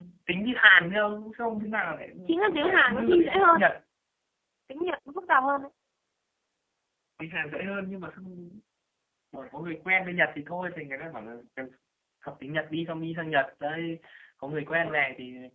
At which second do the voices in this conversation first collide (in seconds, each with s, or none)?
2.5 s